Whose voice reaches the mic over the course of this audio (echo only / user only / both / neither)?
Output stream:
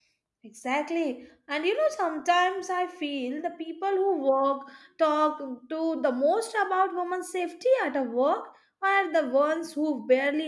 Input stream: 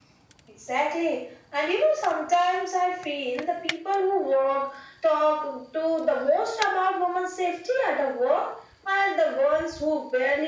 echo only